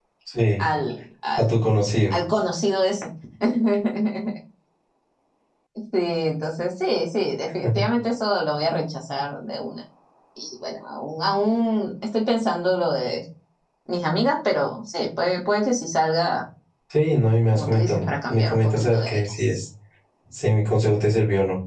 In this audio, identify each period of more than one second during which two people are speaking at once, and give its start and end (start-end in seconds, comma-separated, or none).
17.5-19.6